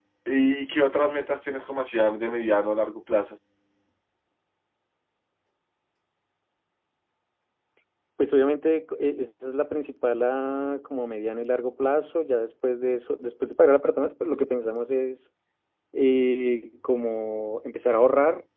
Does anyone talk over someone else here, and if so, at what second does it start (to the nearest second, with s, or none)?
none